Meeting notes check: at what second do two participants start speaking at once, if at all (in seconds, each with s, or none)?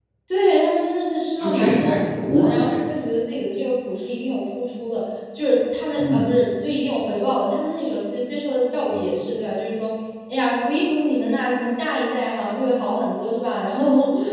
1.4 s